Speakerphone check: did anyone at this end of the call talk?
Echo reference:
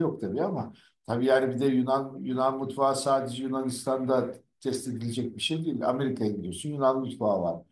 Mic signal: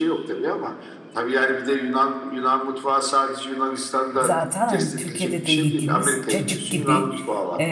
Yes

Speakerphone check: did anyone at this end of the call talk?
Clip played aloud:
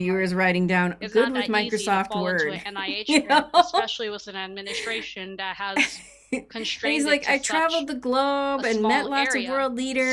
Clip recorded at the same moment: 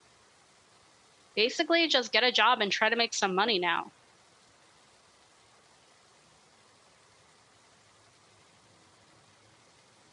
Yes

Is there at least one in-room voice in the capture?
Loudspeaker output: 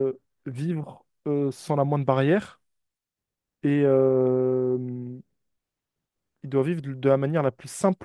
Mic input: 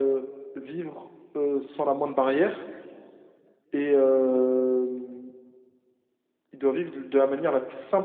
No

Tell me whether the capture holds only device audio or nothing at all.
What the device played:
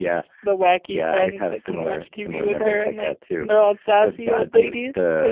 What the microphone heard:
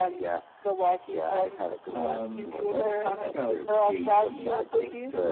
No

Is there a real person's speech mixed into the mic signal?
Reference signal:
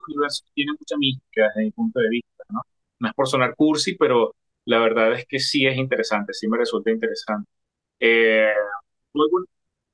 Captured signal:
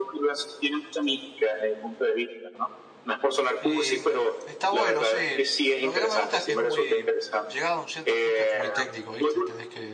Yes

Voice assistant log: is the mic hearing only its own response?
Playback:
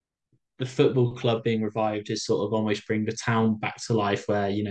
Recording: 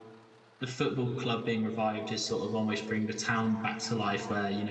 Yes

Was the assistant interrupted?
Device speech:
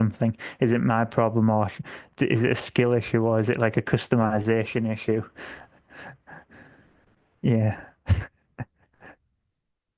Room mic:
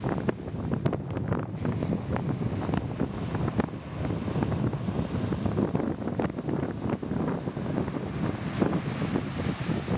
No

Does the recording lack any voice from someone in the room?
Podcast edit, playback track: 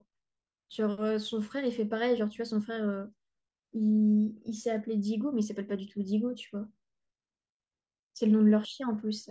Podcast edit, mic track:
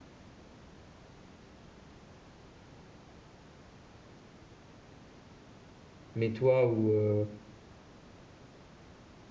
No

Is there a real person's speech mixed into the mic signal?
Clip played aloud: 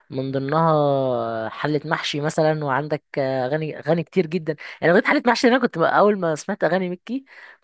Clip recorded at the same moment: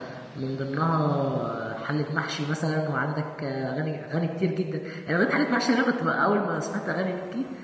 No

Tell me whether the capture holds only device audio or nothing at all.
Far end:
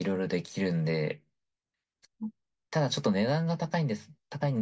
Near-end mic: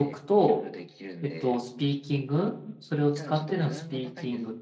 No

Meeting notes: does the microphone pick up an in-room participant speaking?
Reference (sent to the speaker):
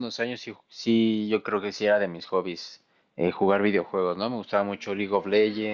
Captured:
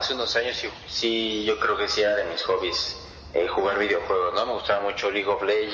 No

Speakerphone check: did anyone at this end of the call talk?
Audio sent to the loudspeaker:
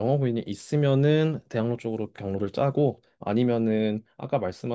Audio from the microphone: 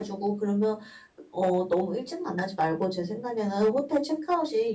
Yes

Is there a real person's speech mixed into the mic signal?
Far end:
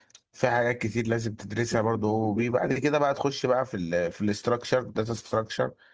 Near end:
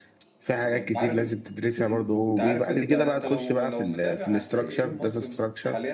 Yes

